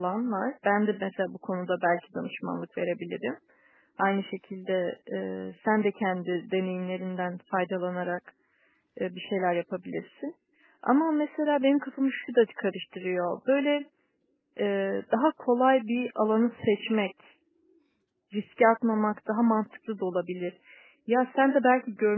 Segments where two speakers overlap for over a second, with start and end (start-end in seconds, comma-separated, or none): none